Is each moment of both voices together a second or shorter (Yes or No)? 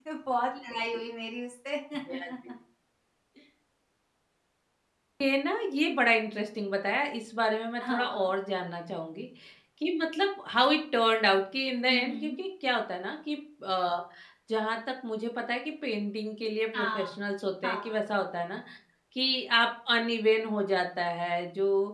Yes